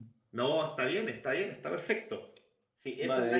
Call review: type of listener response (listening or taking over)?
taking over